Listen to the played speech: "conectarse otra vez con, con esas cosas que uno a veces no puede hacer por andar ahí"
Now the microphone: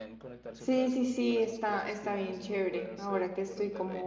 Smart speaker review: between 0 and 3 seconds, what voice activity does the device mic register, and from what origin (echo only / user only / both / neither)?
both